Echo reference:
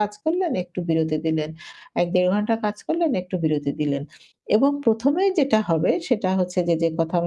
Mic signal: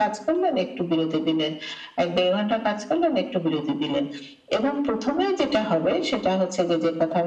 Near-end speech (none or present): none